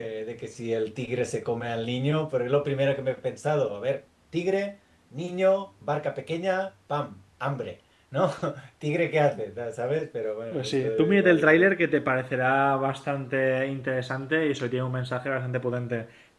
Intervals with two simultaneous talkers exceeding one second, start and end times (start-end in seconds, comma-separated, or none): 10.5-11.7